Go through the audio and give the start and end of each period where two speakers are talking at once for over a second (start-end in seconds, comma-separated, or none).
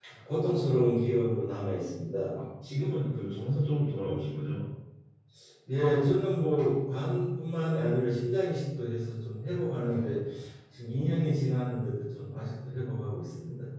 none